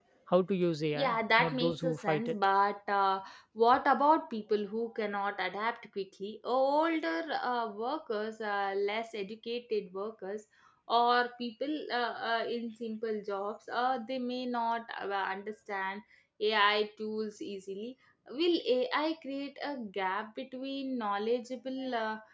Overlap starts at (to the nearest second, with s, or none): 1 s